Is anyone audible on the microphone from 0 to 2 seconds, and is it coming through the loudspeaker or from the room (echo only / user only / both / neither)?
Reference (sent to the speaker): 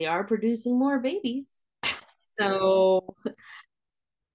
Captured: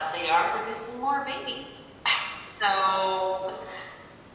echo only